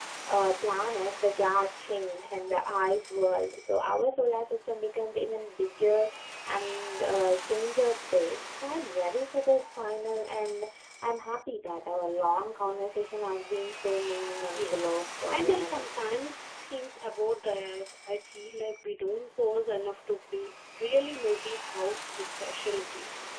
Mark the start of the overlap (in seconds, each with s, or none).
14.4 s